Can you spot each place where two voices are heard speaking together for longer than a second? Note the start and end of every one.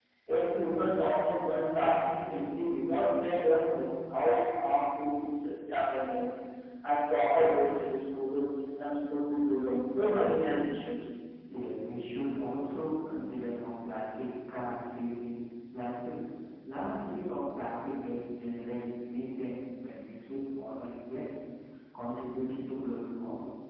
none

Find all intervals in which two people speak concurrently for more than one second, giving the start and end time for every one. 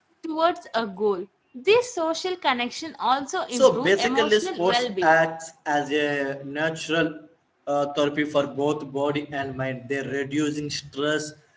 3.5-5.2

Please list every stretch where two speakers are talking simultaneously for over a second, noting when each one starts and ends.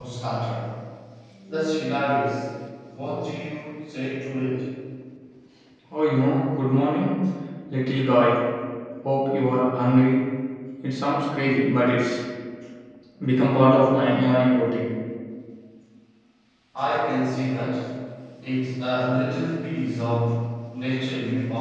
none

